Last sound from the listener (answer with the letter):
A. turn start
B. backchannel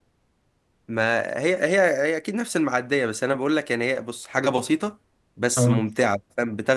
B